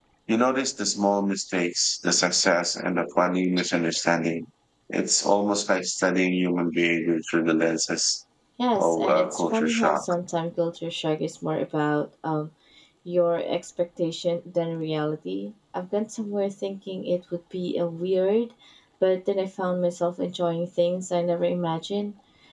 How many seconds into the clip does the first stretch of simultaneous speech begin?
8.8 s

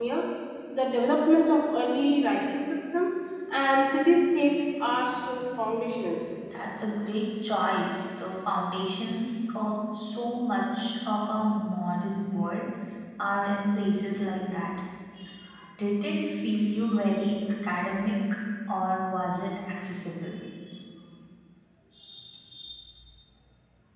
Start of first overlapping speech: none

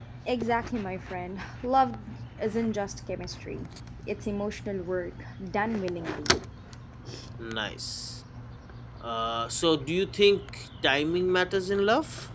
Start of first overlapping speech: none

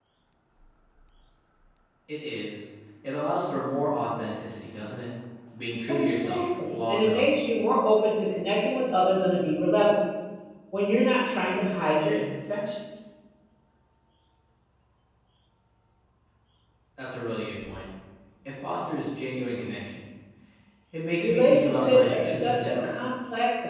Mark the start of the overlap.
5.9 s

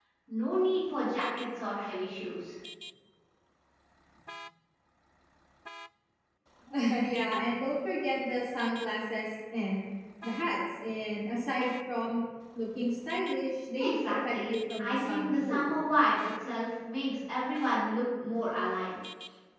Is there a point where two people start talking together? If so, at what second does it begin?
13.8 s

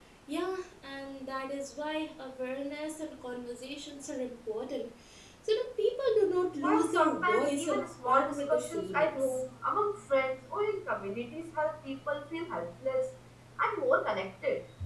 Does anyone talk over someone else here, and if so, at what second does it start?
6.6 s

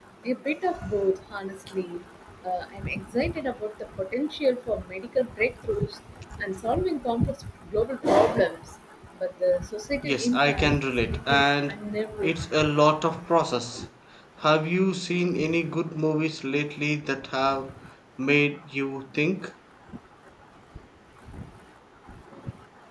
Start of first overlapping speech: 10.0 s

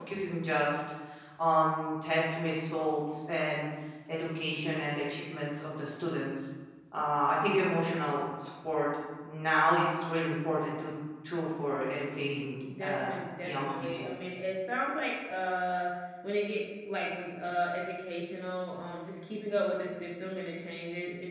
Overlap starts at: 12.7 s

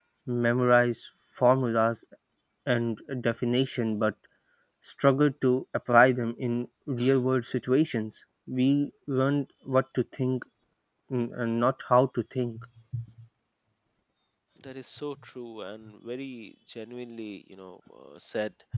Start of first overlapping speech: none

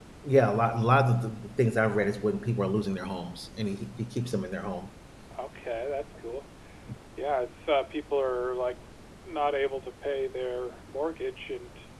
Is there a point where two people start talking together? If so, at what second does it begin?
none

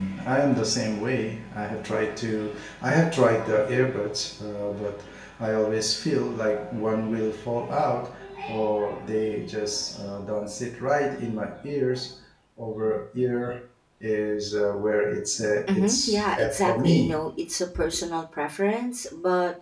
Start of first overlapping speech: 15.7 s

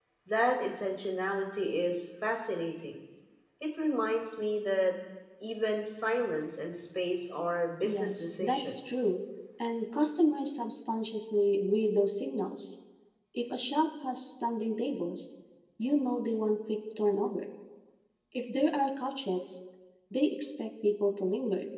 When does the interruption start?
7.8 s

